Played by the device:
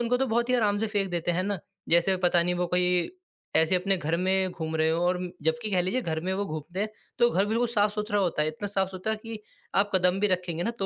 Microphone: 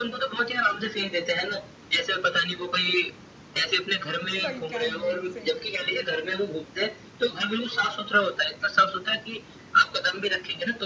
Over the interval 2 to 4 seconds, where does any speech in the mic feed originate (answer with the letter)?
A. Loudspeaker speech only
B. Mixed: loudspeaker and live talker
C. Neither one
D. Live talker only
A